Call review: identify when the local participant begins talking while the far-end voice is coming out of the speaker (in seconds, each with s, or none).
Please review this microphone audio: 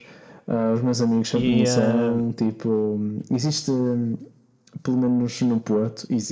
1.3 s